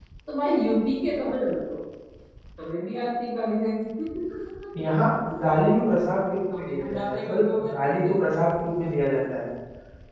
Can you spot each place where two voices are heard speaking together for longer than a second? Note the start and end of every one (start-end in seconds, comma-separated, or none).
6.6-8.2